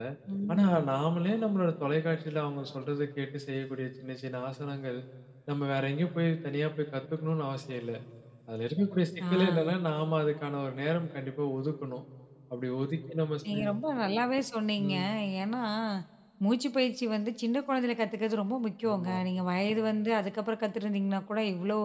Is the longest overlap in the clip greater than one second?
No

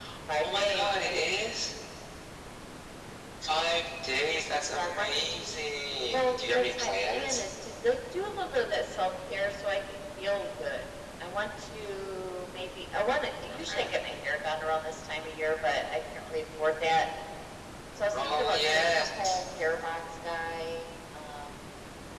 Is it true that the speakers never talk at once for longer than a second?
No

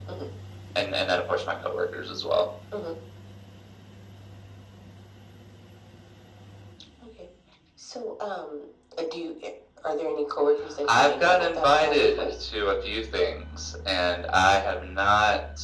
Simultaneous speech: Yes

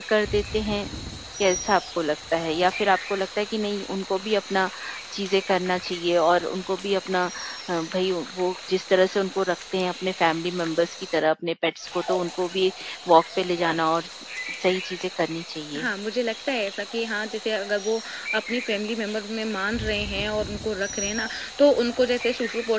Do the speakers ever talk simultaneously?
No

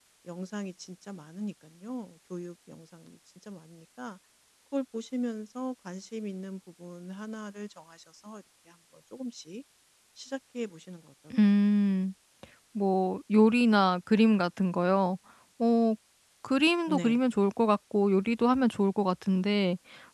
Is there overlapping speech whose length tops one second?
No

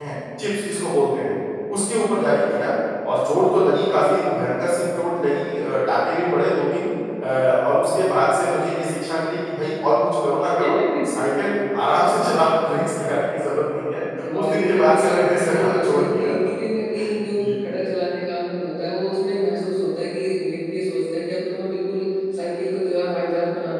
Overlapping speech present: Yes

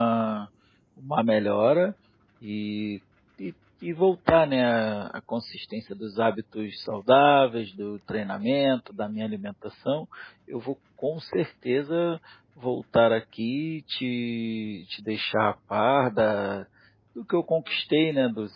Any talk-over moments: No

